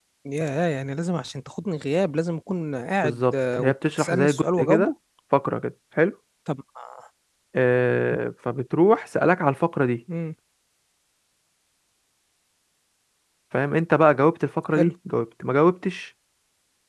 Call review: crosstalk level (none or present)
present